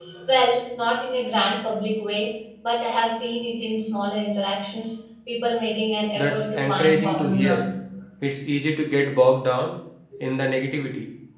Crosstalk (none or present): present